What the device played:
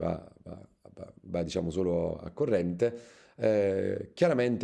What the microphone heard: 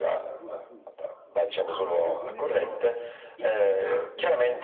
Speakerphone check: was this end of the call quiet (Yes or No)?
No